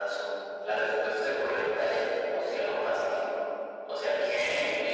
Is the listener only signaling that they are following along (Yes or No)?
No